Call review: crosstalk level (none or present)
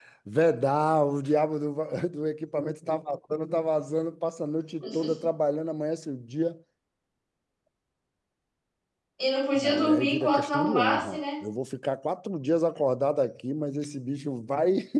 present